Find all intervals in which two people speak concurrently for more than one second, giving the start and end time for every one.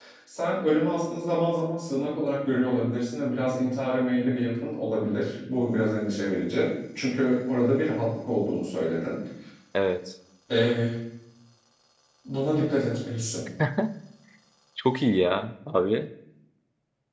none

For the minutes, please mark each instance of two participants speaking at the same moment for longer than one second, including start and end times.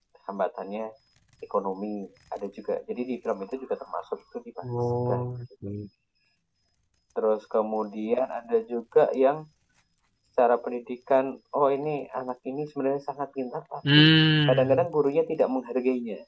none

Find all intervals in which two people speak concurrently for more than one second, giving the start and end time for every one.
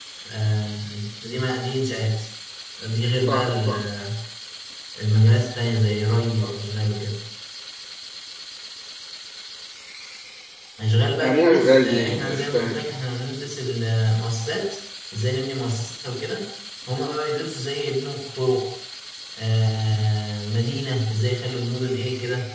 11.2-12.8

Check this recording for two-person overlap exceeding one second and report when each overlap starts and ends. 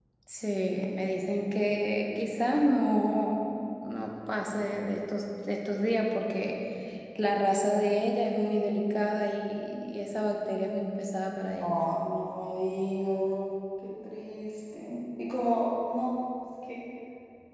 none

